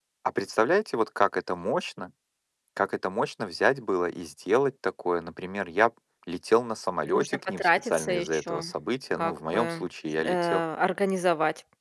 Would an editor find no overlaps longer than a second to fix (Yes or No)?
No